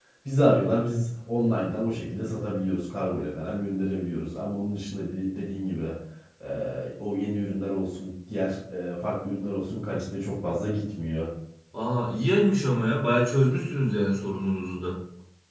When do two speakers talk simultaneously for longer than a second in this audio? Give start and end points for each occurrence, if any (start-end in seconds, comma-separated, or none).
none